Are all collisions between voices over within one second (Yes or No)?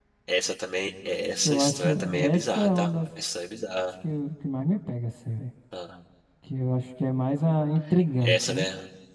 No